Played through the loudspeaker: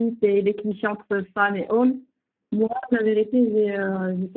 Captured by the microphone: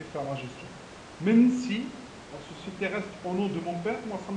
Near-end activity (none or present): present